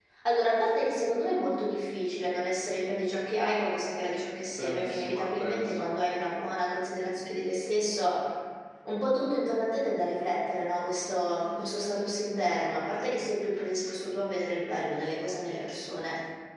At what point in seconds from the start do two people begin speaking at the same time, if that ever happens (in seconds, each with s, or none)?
4.6 s